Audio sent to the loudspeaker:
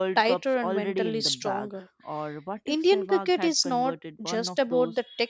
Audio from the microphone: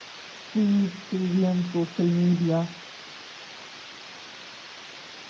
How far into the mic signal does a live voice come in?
0.4 s

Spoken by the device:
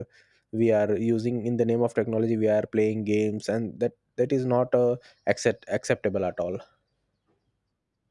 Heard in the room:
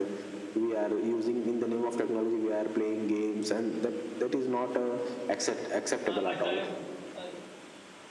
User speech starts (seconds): 6.1 s

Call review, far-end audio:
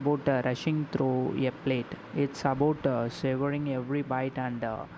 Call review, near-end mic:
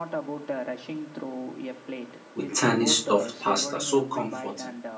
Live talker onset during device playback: 2.3 s

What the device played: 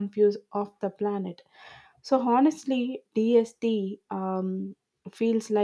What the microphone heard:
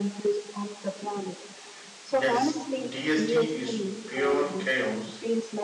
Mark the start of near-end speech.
2.2 s

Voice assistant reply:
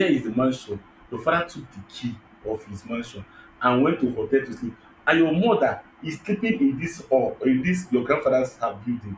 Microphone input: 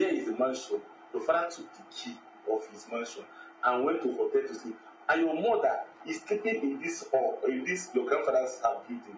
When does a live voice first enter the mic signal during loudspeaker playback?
none

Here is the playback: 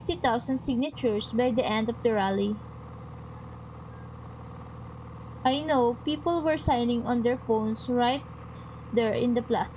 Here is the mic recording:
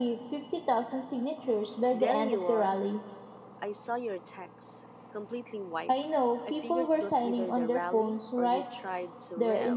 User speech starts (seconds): 1.9 s

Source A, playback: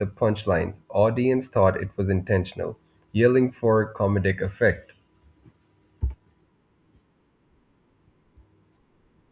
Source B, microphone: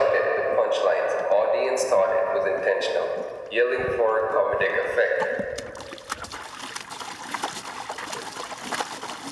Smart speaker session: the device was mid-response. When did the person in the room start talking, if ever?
none

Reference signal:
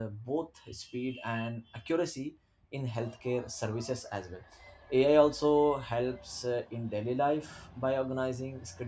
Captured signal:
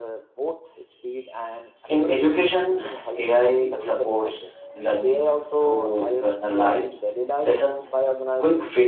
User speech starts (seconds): 1.9 s

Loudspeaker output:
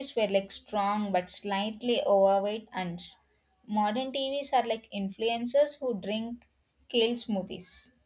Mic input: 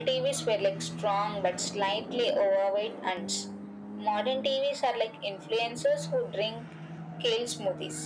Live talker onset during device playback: none

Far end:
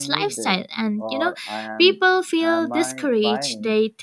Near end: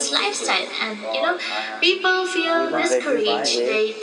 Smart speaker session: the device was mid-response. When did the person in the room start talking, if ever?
2.5 s

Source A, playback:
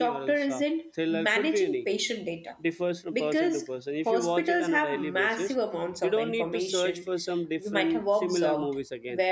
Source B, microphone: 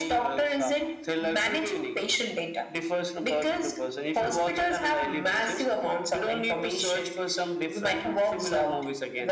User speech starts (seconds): none

